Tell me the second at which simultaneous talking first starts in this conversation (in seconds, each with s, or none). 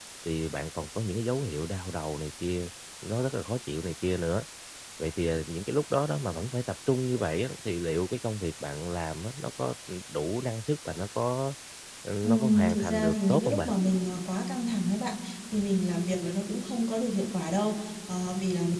12.2 s